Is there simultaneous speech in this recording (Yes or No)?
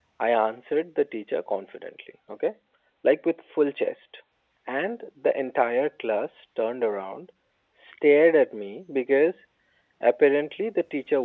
No